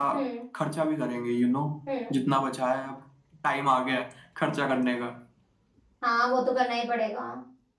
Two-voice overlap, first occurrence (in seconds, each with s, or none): none